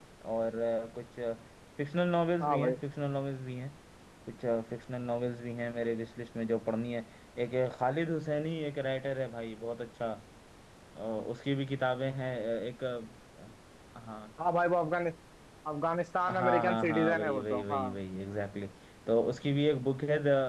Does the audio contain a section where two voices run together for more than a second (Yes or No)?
Yes